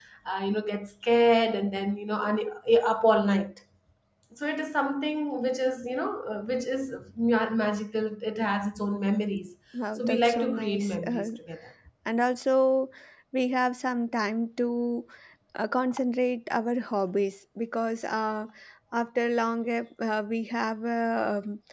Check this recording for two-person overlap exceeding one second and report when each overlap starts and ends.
10.0-11.3

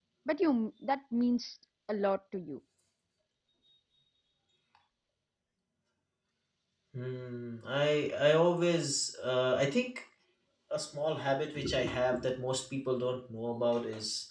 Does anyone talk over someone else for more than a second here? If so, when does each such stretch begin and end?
none

